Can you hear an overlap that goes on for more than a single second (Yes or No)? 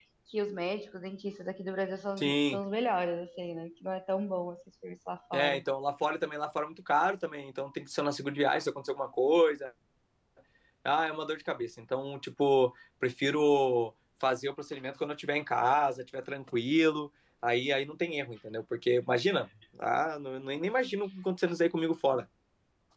No